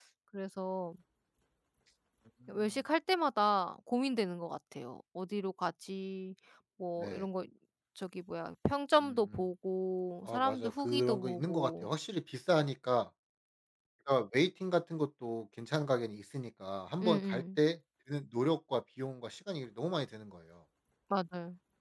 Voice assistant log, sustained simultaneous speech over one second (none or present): present